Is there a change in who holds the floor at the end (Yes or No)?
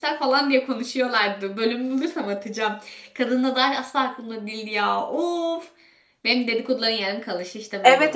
Yes